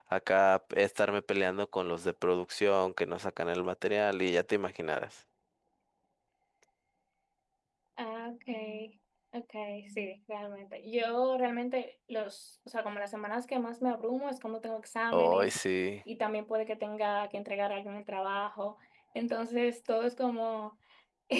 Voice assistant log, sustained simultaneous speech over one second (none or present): none